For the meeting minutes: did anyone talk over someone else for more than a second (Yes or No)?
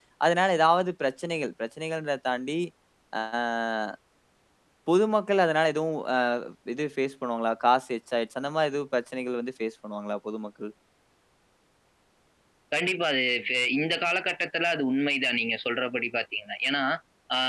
No